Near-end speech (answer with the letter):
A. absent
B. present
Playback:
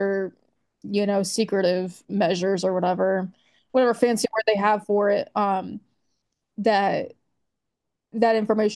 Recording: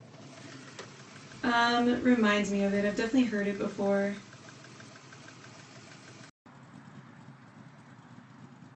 B